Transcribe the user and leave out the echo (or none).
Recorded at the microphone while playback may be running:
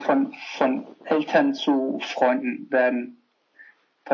none